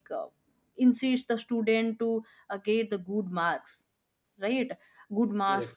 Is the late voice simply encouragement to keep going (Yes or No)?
Yes